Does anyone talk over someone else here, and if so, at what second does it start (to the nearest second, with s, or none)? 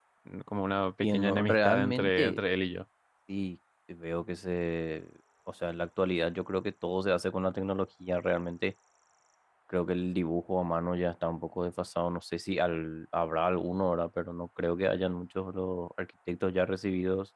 1 s